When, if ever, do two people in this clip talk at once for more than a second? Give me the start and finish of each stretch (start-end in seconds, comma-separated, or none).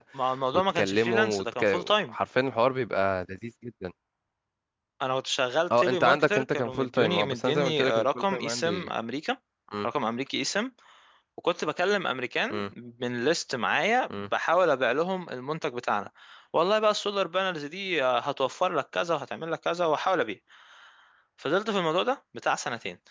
0.7-2.1, 5.8-8.9